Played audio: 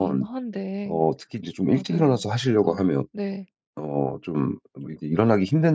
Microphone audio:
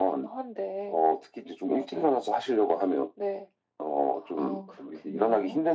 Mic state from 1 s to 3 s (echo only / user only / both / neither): echo only